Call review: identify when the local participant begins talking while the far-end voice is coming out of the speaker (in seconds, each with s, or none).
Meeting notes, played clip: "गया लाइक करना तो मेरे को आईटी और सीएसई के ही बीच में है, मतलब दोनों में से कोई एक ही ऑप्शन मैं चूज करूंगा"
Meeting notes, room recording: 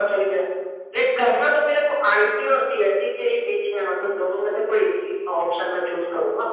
none